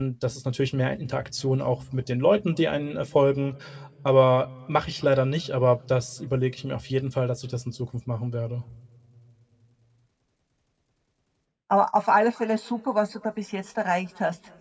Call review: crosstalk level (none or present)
none